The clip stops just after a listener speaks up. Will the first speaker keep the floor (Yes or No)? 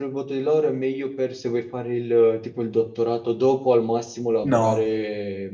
Yes